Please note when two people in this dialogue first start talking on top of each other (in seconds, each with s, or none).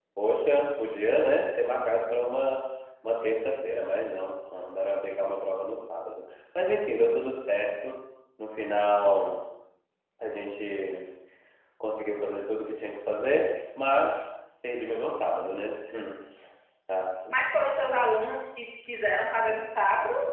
none